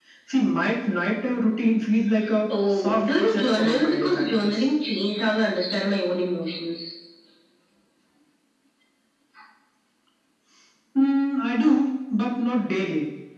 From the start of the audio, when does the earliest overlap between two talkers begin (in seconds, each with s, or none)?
2.5 s